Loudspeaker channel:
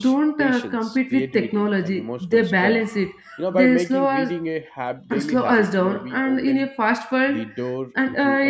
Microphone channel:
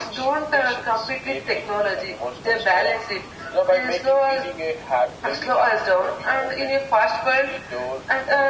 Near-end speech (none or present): none